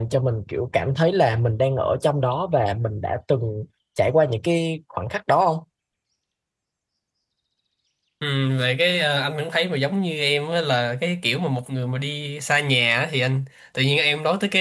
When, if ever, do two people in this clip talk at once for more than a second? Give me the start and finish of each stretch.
none

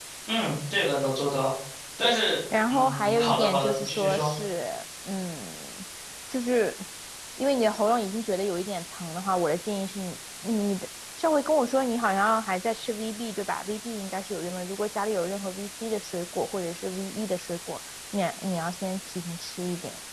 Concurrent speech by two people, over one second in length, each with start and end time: 2.7-4.3

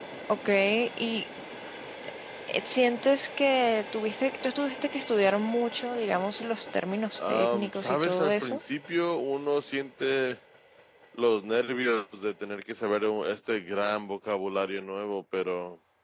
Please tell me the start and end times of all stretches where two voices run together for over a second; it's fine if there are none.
7.2-8.6

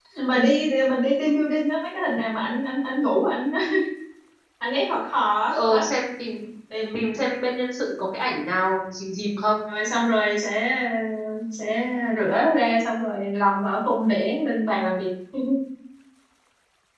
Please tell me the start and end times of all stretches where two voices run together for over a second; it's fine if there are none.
none

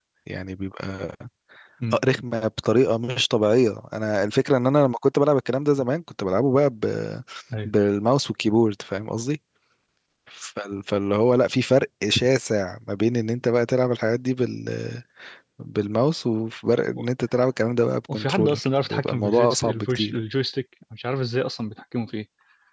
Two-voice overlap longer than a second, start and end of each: 18.1-20.1

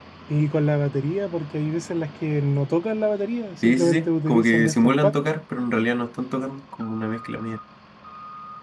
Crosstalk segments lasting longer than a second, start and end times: 3.6-5.1

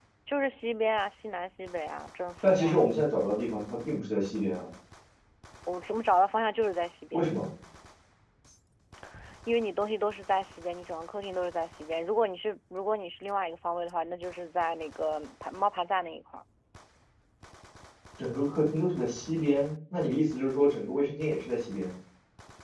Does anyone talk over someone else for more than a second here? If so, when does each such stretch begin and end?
none

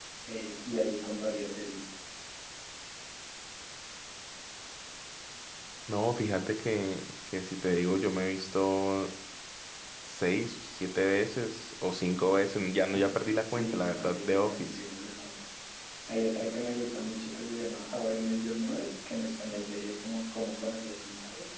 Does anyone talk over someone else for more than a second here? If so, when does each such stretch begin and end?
13.5-14.8

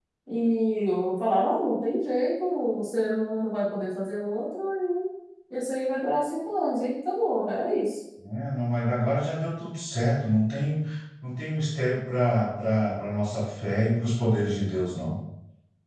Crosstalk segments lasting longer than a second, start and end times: none

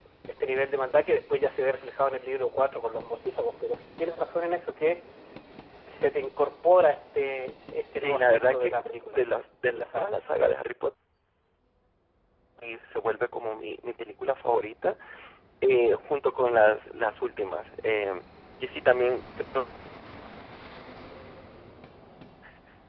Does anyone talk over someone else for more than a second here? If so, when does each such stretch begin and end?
8.0-9.2

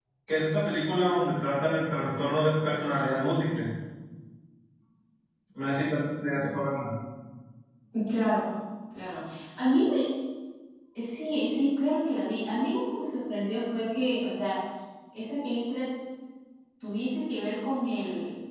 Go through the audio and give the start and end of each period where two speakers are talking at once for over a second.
none

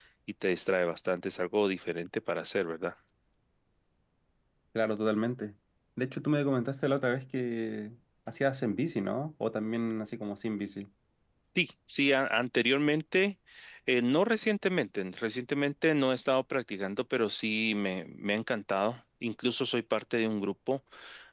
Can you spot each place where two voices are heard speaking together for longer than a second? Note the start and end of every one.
none

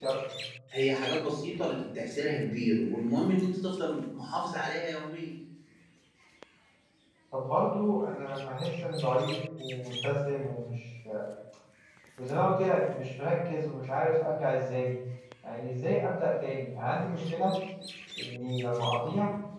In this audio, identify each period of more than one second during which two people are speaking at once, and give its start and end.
none

